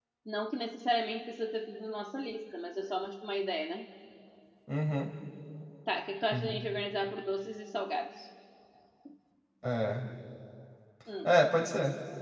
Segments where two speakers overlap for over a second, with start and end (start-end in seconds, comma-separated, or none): none